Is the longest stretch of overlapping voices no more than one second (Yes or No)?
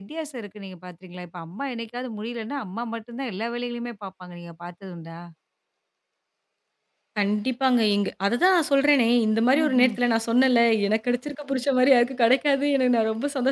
Yes